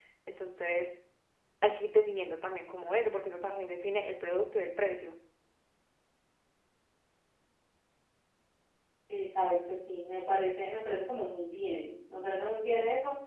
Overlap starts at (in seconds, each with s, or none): none